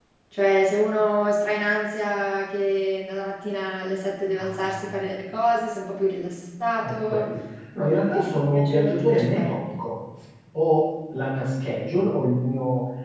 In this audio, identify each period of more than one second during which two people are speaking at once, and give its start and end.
7.8-9.6

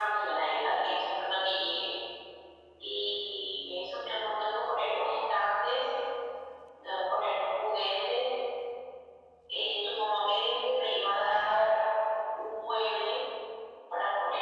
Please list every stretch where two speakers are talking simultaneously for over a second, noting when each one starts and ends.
none

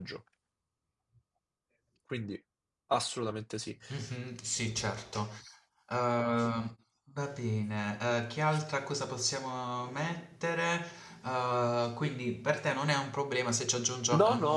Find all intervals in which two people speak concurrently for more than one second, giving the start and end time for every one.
none

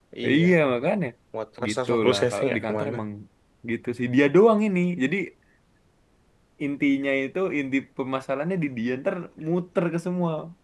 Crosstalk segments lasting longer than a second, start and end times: 1.7-3.0

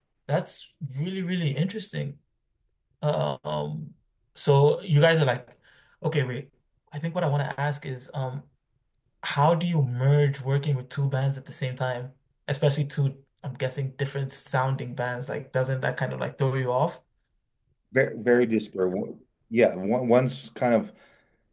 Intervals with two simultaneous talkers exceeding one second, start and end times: none

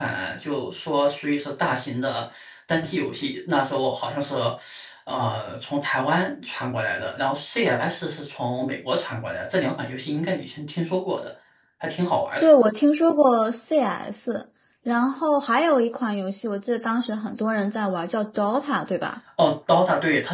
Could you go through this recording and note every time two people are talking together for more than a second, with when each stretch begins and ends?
none

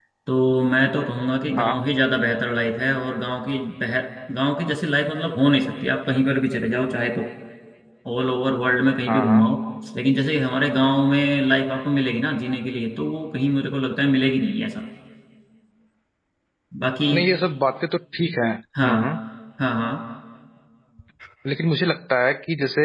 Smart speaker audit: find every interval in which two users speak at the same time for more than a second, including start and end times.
none

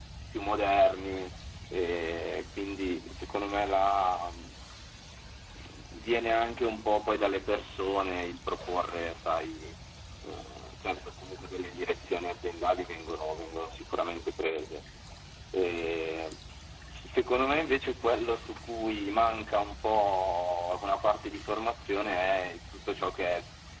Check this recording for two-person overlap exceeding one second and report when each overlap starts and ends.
none

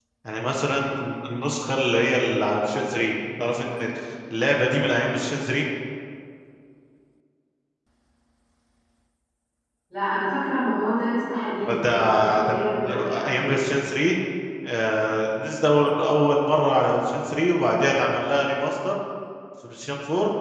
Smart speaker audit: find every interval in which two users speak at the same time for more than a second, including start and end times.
11.8-13.6

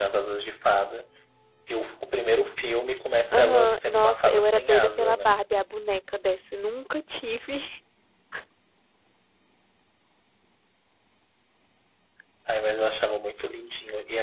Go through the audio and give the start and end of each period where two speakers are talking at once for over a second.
3.3-5.3

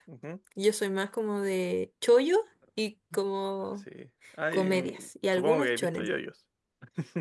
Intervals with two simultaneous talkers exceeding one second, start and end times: 4.5-6.1

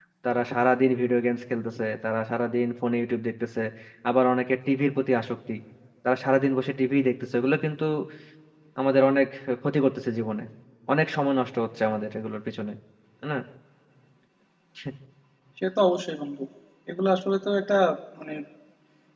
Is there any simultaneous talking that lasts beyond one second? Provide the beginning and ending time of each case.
none

